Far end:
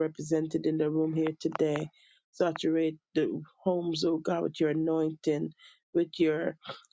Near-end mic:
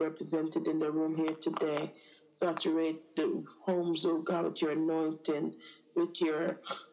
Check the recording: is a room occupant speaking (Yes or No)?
No